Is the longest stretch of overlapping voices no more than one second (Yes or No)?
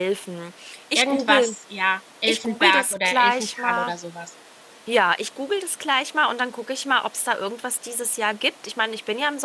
No